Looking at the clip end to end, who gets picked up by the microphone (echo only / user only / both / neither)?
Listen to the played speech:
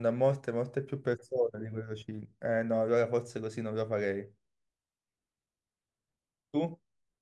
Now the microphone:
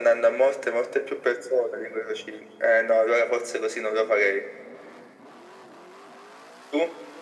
echo only